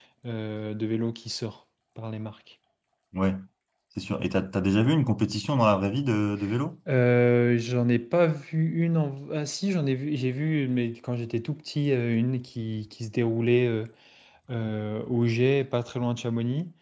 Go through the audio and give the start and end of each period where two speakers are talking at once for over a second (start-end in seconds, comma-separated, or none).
none